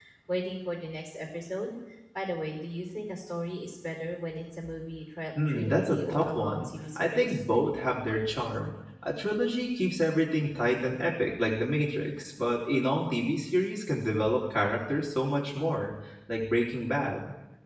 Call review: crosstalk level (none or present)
present